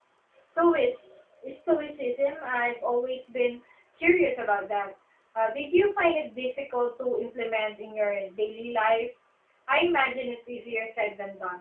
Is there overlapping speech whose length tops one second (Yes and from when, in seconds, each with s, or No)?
No